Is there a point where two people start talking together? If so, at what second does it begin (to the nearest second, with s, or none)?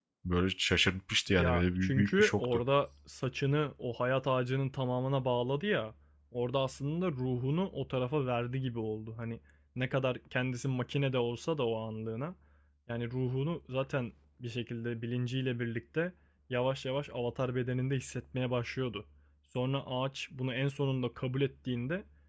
1 s